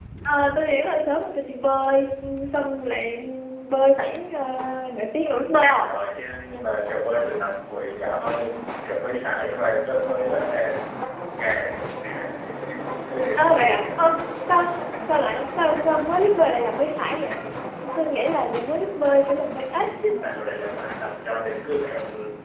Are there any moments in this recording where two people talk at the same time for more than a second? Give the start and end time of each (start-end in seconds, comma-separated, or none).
none